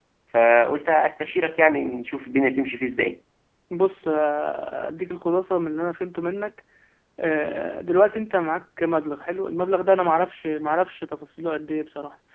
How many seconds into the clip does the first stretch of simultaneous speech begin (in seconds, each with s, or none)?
none